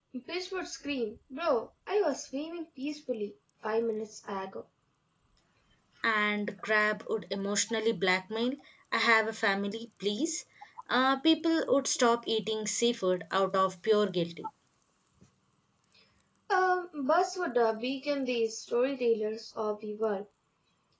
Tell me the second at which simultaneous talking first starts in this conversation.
none

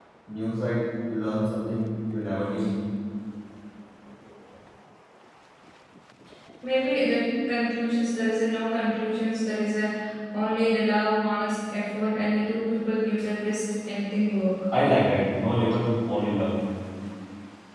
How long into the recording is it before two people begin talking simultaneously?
none

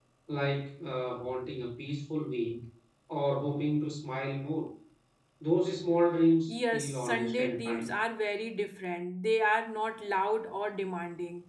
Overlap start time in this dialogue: 6.5 s

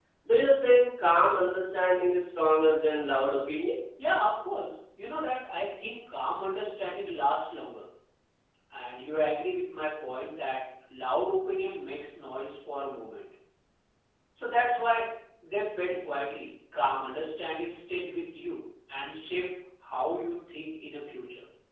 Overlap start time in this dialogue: none

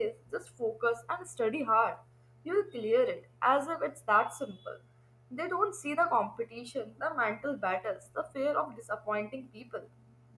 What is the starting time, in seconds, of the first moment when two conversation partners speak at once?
none

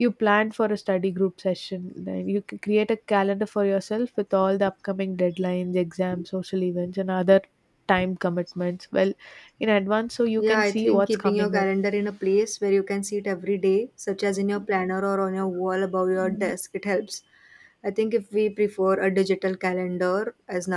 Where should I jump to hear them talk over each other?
10.4 s

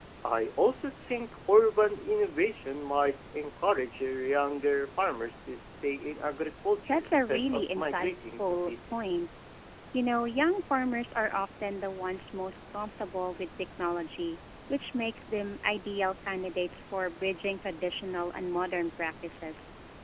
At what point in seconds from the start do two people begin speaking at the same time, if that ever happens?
6.9 s

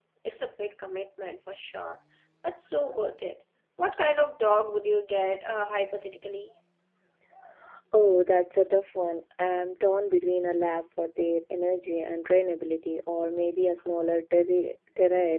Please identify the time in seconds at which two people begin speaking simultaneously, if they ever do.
none

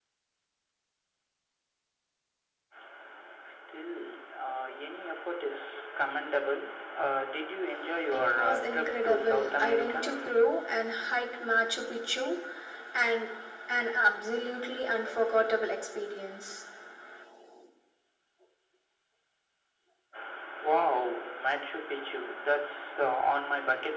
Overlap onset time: 8.1 s

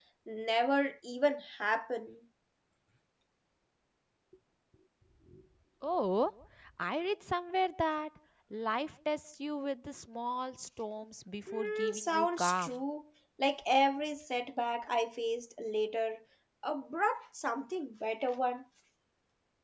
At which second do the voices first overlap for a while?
11.5 s

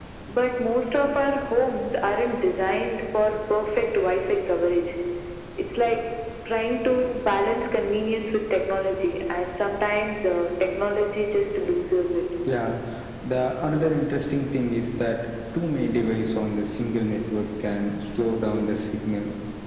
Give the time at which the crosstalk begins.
none

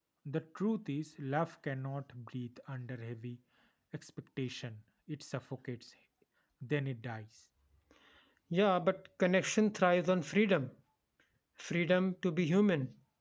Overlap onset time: none

